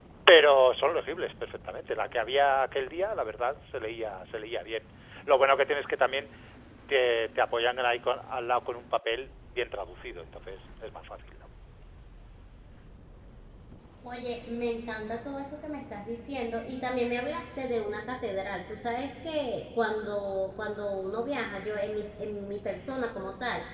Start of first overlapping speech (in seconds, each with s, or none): none